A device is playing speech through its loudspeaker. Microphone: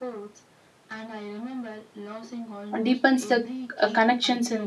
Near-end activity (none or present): present